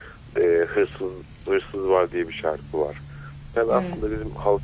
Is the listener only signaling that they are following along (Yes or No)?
Yes